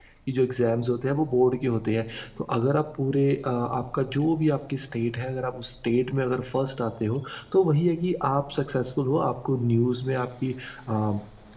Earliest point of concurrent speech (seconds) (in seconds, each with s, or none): none